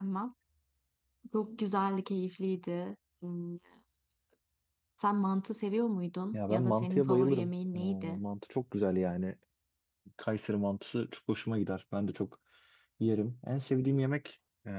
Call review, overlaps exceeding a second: present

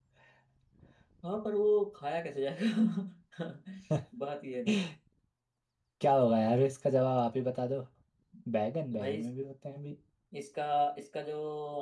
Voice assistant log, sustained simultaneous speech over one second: none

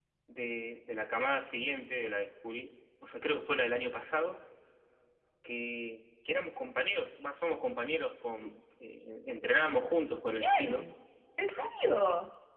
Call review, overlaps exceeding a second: none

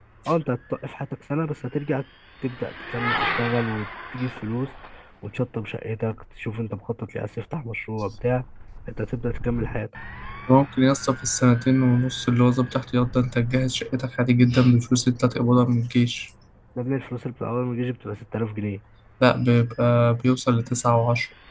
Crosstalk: none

